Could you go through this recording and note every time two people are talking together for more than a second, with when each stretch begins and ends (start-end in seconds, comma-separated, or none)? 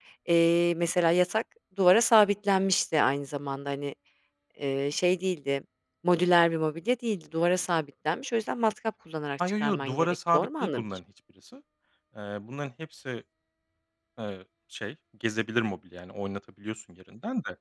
9.6-10.8